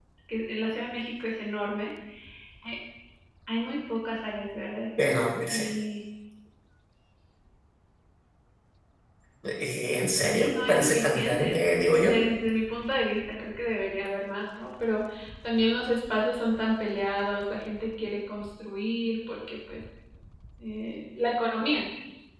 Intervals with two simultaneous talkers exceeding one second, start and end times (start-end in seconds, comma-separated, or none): 10.2-11.6